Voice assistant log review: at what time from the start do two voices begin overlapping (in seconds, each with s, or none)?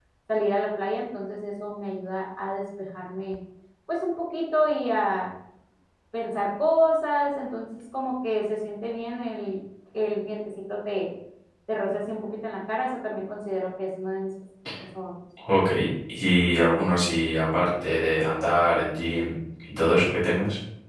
none